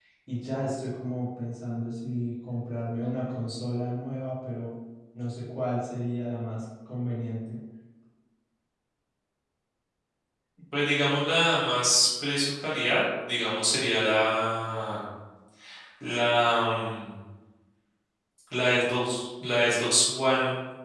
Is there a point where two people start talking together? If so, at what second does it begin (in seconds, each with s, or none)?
none